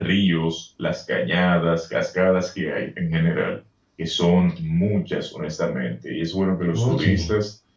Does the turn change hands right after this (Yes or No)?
No